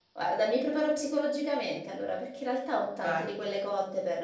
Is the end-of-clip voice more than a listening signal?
No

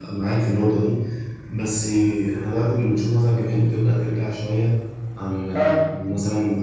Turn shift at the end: No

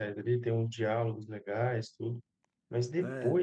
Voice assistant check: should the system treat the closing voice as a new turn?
No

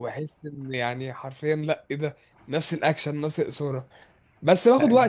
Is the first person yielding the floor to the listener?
No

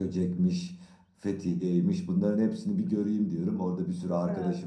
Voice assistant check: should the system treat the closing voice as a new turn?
No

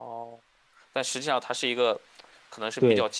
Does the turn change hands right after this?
No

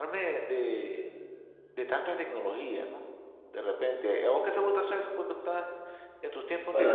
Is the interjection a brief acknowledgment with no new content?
No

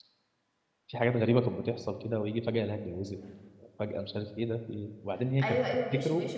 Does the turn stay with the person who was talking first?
No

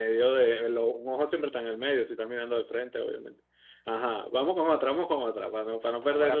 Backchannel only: No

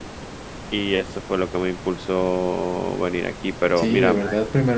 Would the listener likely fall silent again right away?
No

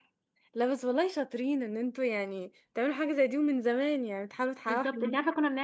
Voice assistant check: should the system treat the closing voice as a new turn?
Yes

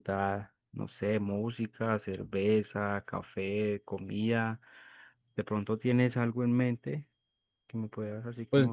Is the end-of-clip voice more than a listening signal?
Yes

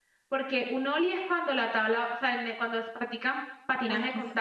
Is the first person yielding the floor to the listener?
No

